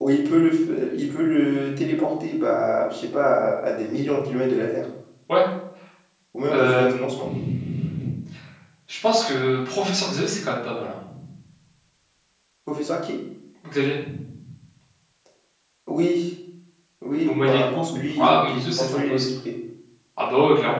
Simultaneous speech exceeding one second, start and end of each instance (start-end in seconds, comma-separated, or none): 17.2-19.2